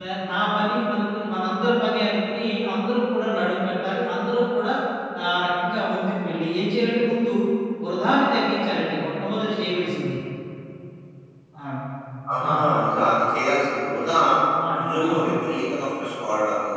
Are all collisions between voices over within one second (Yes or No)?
Yes